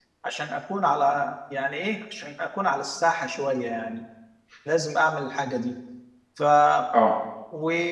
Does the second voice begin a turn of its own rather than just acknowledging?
No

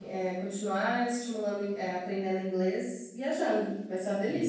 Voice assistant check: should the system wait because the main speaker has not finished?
No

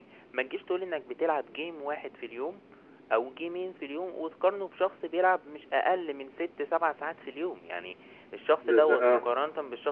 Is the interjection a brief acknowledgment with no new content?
Yes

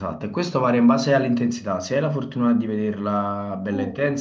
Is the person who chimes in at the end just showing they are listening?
Yes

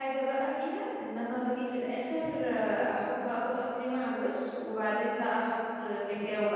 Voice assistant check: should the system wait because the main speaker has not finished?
Yes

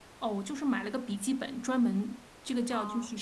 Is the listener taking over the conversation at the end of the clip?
No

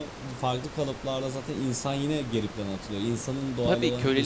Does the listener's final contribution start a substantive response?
Yes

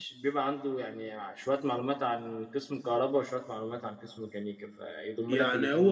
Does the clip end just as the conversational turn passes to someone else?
Yes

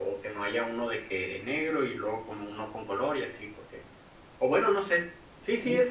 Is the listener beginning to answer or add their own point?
No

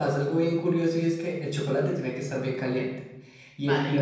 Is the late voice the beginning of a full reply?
No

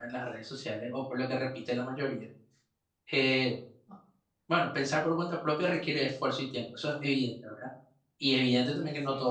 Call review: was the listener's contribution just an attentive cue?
Yes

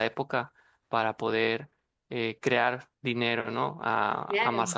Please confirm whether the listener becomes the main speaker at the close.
No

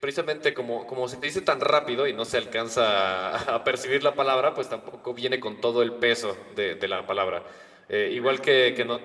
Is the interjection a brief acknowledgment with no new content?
Yes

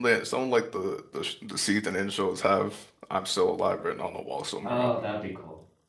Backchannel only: No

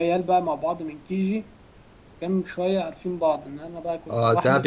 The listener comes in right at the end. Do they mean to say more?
Yes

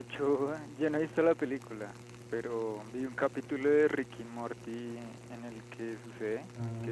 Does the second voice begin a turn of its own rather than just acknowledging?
No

